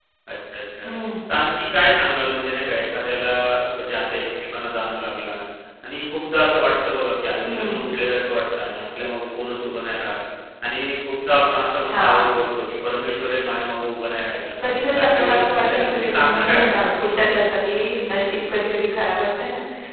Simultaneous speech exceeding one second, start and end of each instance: 14.9-16.9

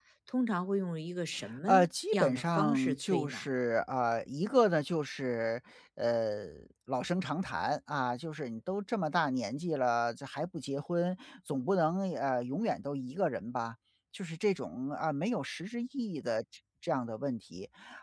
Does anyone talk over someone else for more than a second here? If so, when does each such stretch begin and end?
2.1-3.4

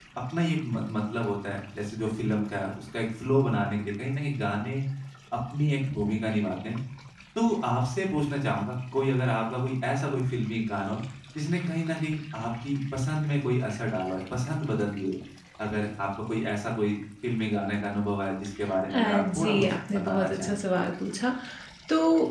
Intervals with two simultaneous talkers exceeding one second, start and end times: 18.9-20.6

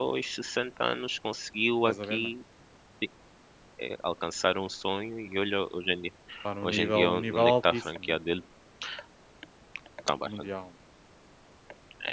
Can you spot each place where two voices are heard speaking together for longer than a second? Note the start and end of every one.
6.6-8.2

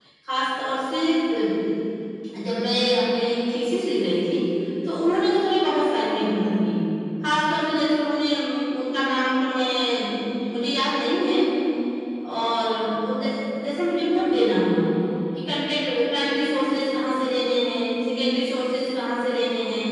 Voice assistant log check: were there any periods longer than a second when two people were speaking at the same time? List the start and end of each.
none

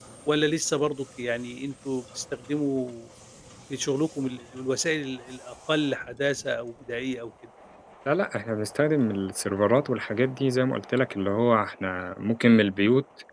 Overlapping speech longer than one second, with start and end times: none

